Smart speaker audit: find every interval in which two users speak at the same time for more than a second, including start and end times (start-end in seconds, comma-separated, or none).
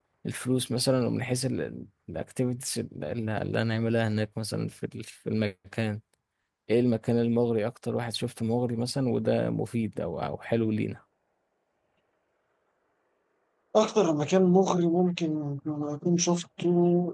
none